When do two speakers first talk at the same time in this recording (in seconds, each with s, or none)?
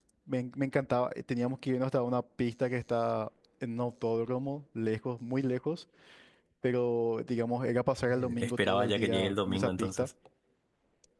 8.0 s